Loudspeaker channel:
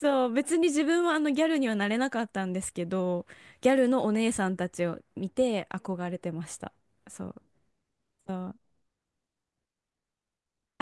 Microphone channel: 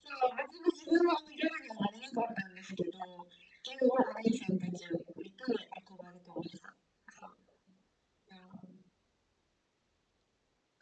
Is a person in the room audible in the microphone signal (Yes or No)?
No